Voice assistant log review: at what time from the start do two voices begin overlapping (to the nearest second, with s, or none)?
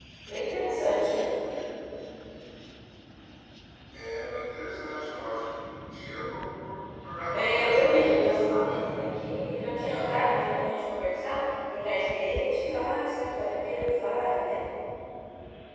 7 s